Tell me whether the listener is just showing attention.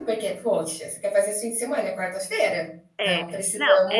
No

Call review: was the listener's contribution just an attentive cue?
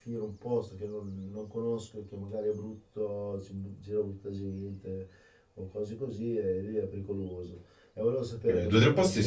No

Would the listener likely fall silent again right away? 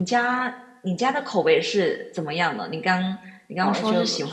No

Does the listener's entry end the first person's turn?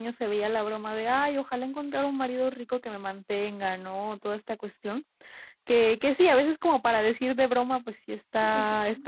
No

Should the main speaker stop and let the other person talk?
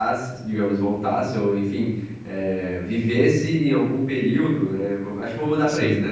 No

